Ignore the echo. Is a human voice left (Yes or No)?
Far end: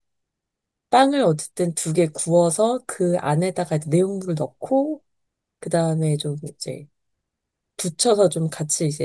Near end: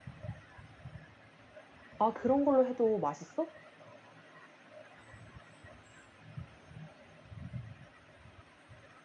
Yes